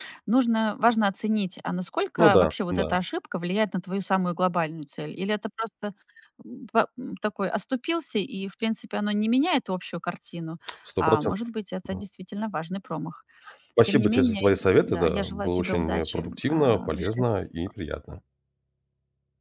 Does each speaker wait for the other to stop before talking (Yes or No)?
No